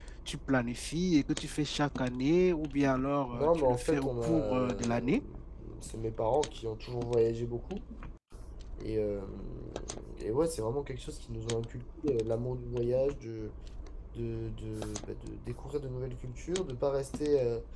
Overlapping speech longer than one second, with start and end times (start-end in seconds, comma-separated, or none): 3.3-5.1